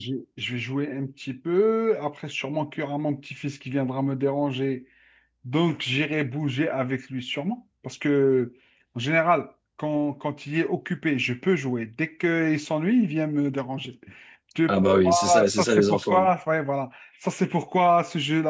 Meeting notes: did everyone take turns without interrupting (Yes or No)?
No